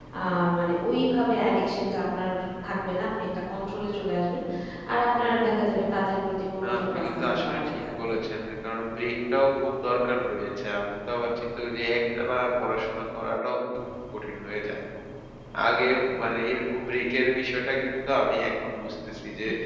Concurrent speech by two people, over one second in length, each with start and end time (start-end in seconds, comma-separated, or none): 6.6-8.1